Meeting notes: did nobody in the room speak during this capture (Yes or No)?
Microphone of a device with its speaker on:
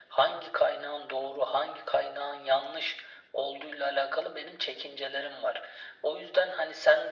Yes